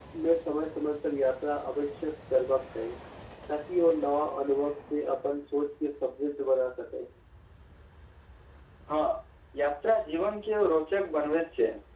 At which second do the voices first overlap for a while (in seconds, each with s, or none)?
none